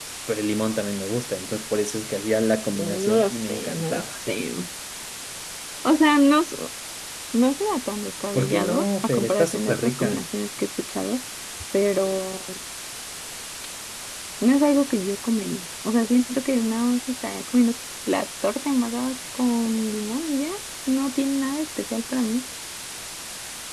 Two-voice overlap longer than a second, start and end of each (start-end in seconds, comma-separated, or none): 2.8-4.0, 8.3-10.2